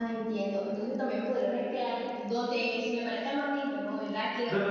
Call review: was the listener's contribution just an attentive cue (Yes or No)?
No